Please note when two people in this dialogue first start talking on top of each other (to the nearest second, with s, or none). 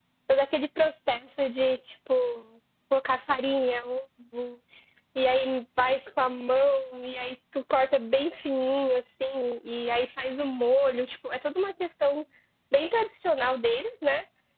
none